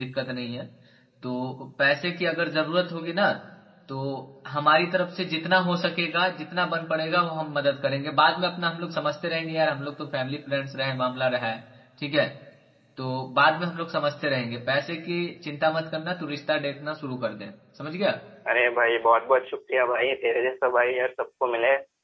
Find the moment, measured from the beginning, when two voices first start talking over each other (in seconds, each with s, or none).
none